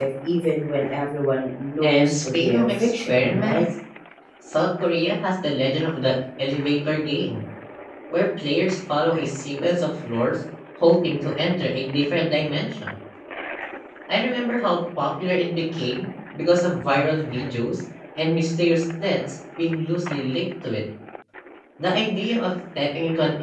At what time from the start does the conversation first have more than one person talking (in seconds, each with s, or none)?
1.8 s